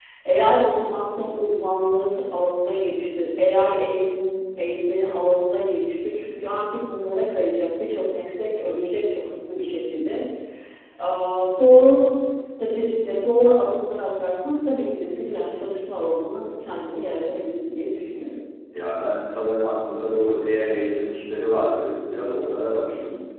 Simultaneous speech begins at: none

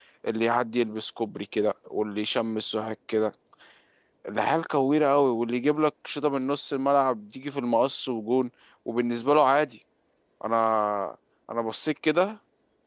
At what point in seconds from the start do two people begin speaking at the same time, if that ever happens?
none

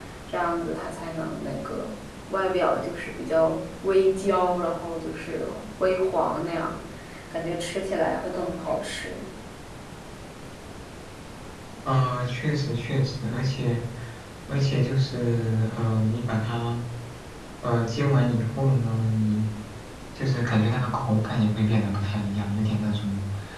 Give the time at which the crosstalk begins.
none

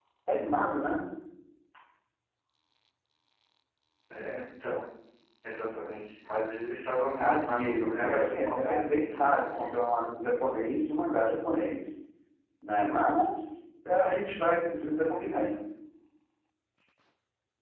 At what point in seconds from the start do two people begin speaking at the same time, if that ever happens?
7 s

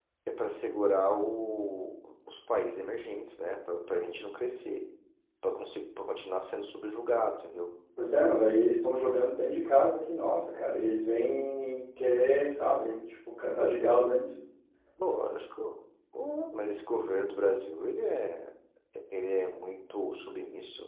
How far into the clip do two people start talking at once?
none

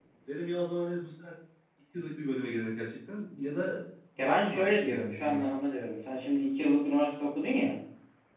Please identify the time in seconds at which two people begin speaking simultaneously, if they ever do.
4 s

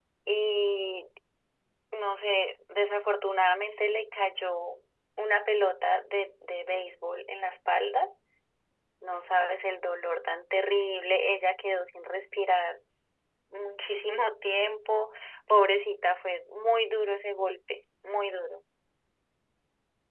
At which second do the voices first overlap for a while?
none

